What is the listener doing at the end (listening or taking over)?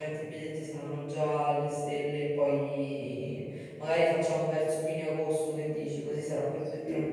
taking over